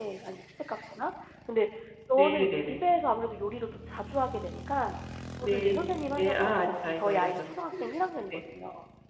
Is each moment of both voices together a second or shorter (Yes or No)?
No